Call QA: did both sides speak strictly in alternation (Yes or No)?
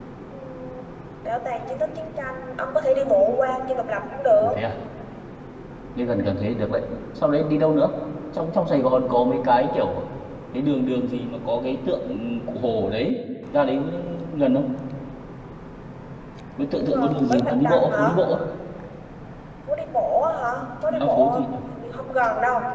No